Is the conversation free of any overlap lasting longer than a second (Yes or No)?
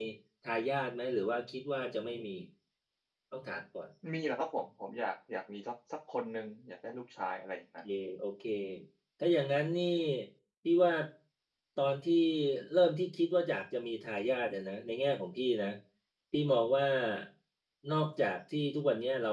Yes